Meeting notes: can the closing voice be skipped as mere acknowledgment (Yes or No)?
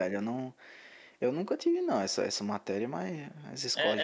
No